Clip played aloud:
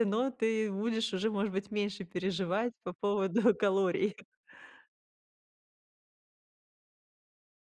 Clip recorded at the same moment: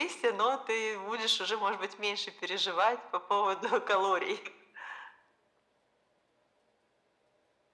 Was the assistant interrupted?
No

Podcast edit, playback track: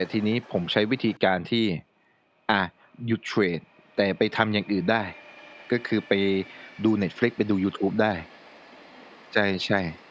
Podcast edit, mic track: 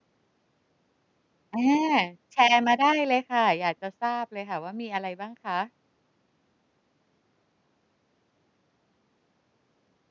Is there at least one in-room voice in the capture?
Yes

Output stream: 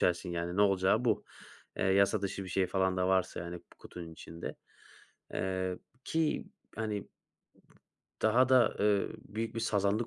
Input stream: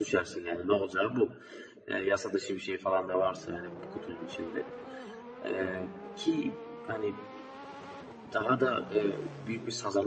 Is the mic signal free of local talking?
Yes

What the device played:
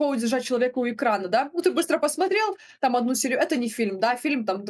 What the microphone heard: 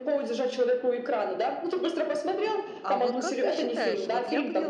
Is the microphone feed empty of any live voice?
No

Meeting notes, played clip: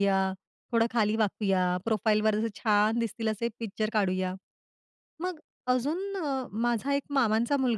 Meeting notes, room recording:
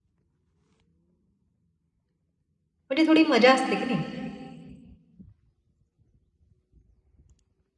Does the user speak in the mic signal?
Yes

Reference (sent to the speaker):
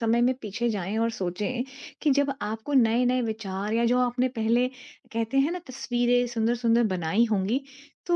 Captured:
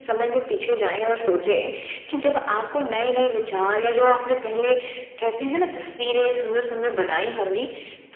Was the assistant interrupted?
No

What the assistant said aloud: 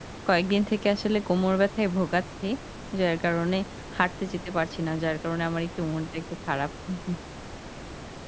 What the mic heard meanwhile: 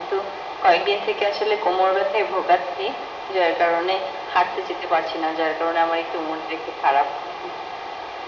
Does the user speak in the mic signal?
No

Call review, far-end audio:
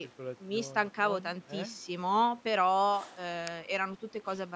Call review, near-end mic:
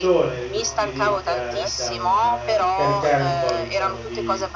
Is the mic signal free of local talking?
No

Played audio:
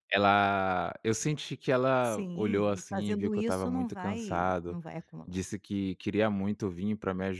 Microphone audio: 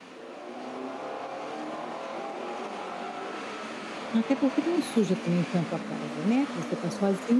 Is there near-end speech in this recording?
Yes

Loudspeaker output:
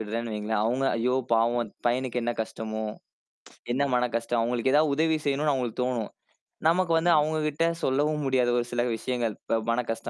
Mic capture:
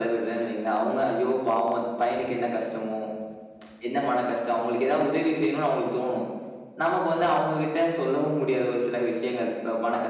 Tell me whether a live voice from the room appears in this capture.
No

